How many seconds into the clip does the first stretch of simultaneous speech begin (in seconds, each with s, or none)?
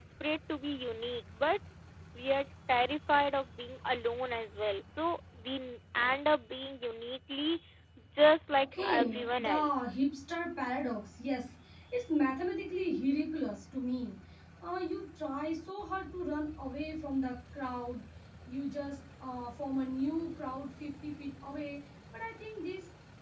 8.6 s